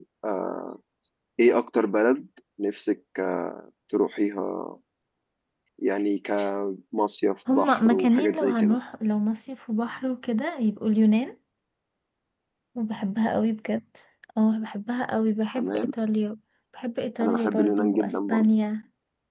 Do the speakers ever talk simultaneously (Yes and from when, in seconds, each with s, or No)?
Yes, from 7.5 s